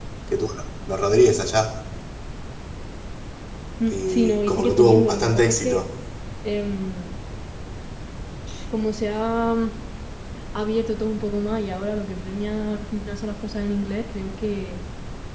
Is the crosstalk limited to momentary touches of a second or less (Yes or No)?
No